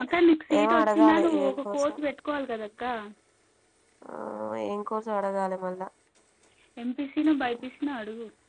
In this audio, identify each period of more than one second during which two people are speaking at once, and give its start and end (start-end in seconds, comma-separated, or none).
0.6-1.9